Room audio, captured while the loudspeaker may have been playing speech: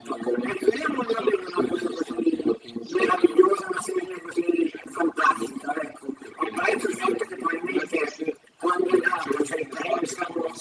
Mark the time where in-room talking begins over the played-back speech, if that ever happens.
none

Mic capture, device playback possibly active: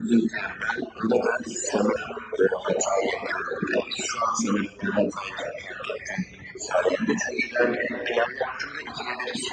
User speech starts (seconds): none

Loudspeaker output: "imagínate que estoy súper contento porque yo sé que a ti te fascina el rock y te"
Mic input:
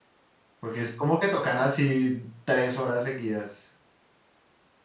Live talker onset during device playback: 1 s

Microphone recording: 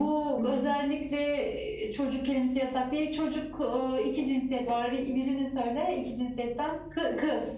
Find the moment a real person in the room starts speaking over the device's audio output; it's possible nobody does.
0 s

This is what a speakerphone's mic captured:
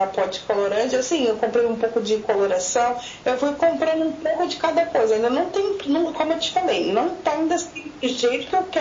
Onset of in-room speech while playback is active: none

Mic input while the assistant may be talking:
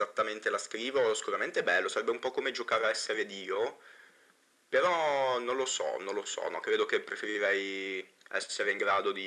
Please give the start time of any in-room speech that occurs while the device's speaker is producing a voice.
none

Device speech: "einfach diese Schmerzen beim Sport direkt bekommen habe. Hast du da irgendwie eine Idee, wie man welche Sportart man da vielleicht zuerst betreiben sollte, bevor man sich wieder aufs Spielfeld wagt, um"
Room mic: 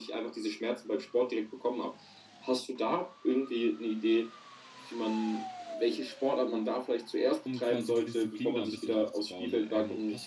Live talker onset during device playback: 7 s

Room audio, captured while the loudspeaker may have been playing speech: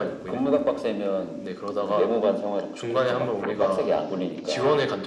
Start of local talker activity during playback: none

